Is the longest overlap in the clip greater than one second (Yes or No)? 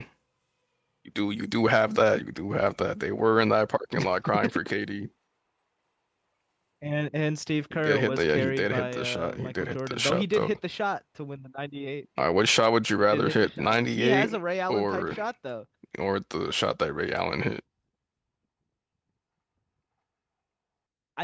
Yes